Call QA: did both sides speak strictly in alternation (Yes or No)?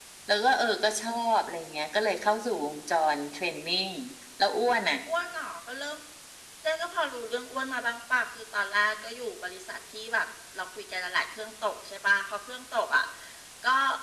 Yes